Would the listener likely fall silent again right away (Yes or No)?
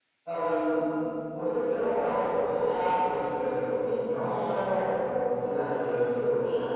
No